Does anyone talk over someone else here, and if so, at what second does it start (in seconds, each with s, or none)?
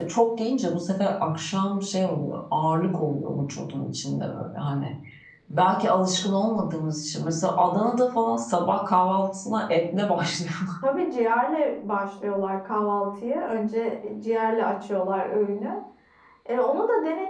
none